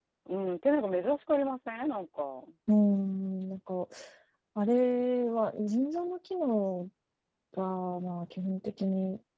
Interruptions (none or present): none